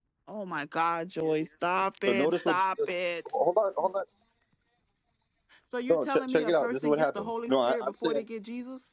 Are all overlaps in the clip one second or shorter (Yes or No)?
No